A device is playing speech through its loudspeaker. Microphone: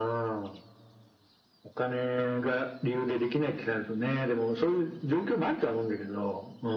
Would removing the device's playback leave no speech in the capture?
Yes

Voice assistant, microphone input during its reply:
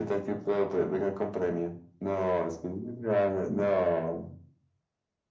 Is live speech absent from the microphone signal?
Yes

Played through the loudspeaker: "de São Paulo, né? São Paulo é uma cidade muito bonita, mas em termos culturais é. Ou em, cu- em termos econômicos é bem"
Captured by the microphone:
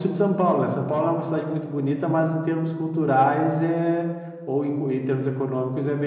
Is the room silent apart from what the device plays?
Yes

